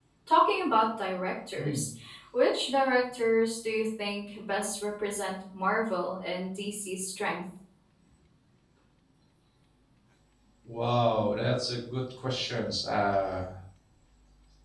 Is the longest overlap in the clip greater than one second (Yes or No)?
No